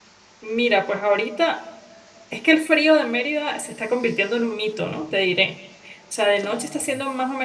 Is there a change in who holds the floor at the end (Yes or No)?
No